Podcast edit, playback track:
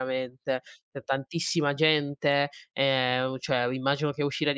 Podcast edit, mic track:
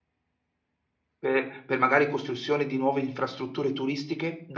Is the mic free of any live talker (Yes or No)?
No